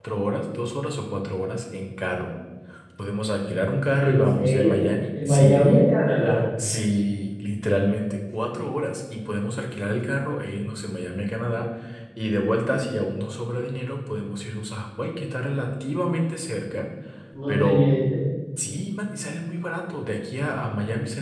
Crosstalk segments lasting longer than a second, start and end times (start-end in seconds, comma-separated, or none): 4.0-5.9